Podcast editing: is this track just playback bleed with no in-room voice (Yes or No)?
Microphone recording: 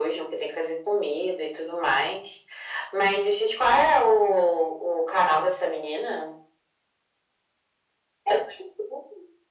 Yes